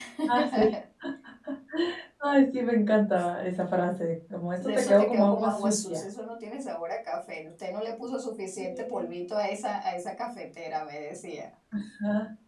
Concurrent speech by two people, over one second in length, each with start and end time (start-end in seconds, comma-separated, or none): 4.6-6.0